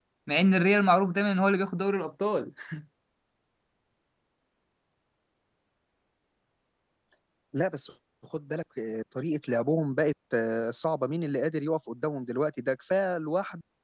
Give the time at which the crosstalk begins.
none

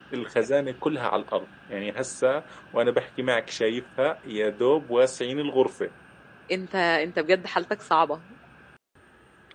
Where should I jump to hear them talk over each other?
none

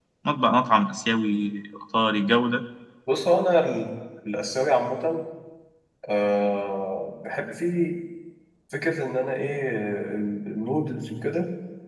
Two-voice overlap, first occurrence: none

